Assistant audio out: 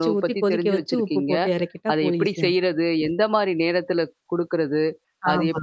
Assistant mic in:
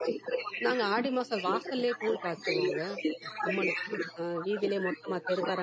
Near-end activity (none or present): present